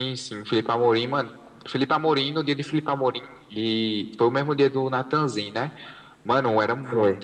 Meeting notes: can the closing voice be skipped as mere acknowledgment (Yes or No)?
Yes